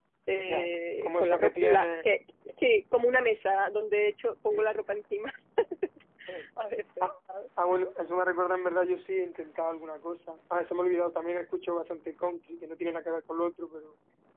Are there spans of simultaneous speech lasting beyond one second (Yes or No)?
Yes